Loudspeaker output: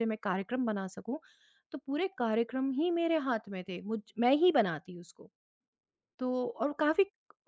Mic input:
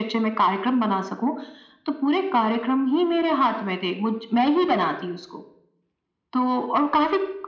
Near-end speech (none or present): none